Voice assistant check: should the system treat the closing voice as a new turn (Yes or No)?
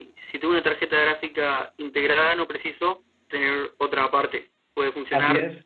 Yes